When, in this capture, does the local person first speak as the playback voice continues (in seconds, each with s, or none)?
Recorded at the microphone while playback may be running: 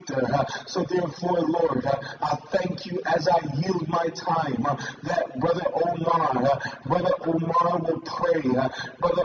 none